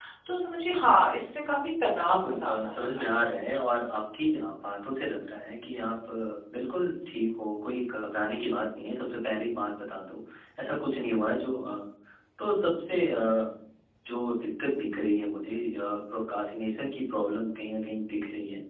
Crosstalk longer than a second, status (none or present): present